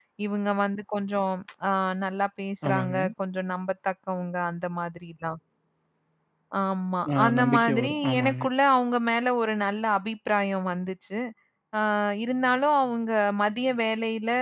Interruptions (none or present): present